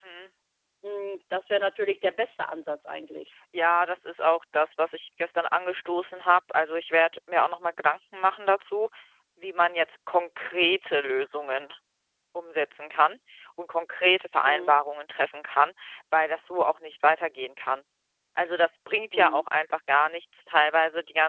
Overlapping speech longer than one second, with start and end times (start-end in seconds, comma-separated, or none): none